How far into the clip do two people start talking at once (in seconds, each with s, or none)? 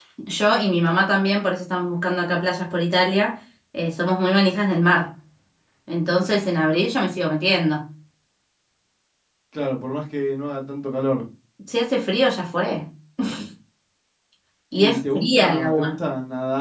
14.8 s